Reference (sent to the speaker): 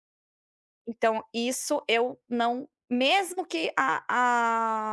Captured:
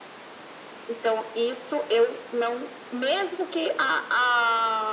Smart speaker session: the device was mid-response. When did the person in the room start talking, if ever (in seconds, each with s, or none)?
none